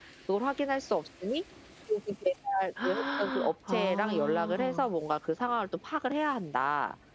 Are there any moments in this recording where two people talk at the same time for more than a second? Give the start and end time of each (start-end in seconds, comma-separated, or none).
2.8-4.9